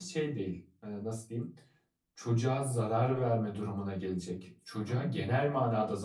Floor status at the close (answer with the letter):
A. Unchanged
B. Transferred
A